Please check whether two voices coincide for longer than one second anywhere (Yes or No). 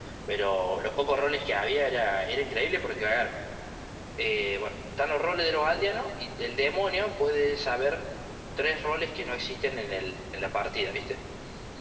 No